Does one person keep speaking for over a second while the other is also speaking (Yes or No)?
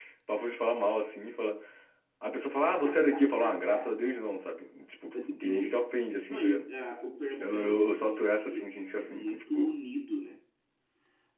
Yes